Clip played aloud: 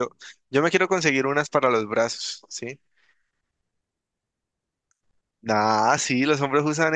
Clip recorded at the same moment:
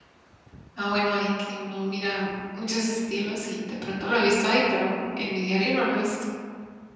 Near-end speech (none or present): present